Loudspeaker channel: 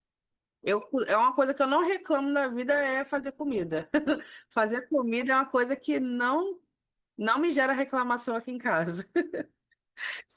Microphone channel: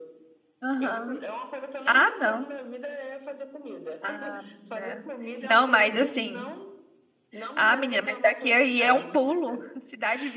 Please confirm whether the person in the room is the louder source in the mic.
Yes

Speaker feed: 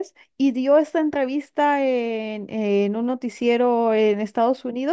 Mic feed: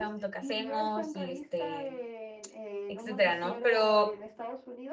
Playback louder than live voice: No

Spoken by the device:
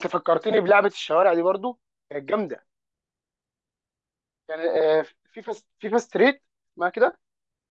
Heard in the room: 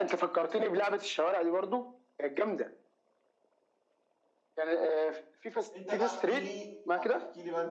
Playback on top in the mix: Yes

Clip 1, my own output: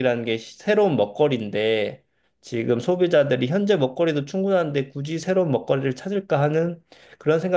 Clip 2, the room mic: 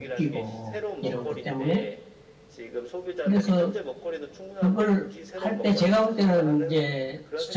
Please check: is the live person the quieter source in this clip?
No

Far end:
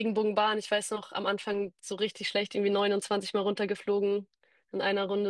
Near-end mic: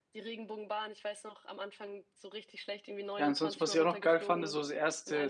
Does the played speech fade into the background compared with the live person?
Yes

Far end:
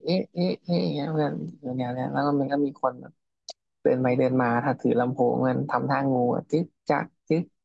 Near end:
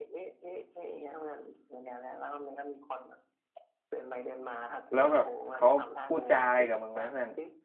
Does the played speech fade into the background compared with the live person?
Yes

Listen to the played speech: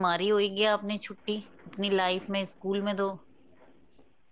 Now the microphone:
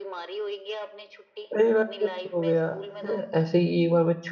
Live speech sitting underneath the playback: No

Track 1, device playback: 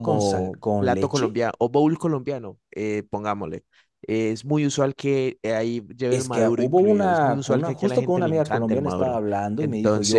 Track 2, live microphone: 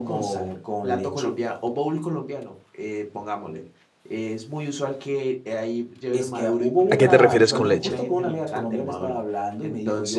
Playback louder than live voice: No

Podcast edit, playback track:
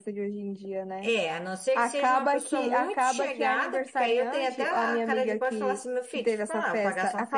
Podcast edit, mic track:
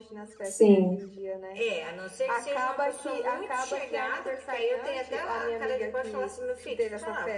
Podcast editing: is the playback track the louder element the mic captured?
No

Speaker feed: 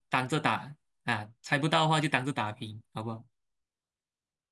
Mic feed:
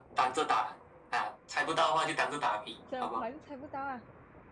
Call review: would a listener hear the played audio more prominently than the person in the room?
Yes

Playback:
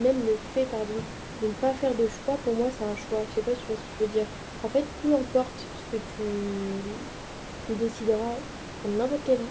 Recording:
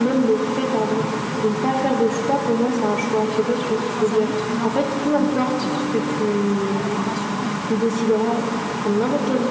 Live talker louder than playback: No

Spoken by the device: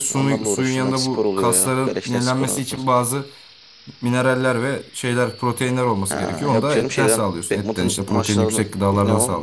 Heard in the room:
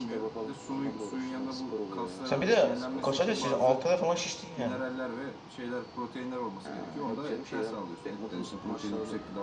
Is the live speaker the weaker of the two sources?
No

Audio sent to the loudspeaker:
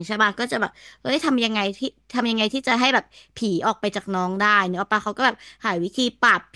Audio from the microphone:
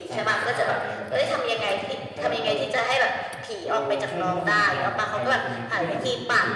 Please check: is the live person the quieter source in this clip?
Yes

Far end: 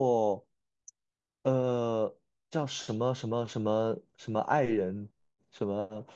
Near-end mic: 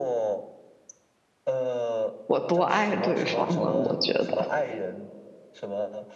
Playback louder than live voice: No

